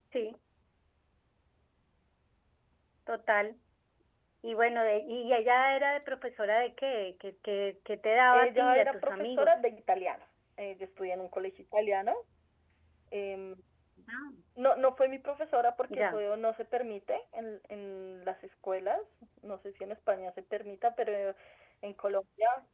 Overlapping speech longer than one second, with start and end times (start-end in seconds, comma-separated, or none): 8.3-9.6